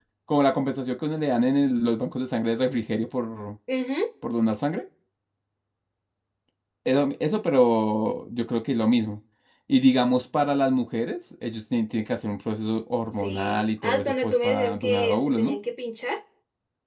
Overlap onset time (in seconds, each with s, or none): 13.2 s